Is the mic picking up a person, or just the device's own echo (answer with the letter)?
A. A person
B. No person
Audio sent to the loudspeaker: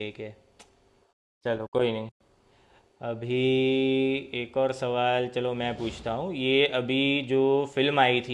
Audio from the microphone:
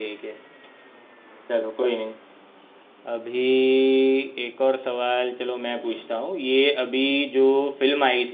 B